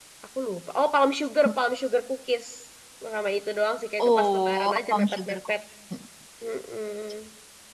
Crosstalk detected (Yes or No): Yes